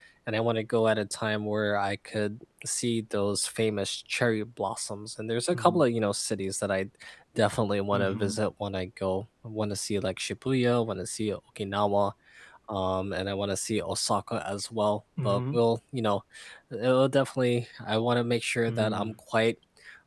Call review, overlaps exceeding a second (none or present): none